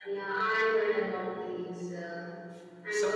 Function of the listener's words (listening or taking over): listening